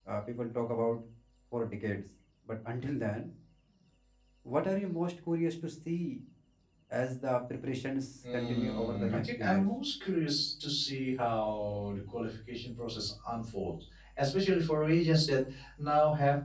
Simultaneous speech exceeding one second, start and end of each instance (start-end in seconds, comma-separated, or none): 8.3-9.7